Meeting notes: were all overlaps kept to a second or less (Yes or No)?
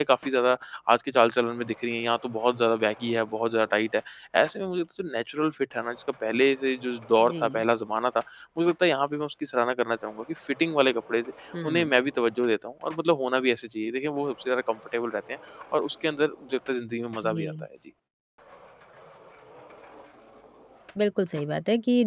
Yes